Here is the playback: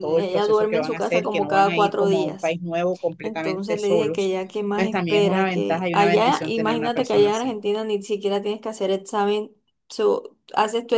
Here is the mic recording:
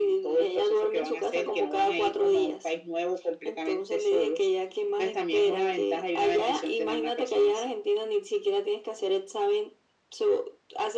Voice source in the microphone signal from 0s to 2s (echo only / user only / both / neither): echo only